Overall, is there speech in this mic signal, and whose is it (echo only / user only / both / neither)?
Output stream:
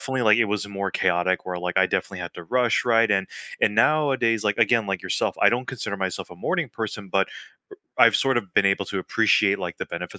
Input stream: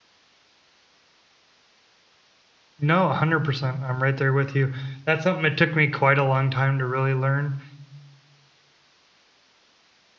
user only